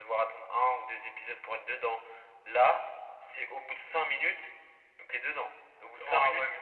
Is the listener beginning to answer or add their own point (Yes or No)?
Yes